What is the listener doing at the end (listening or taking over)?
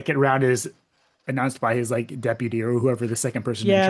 taking over